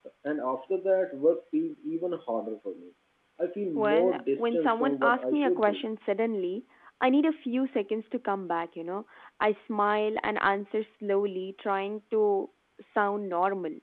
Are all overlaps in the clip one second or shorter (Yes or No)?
No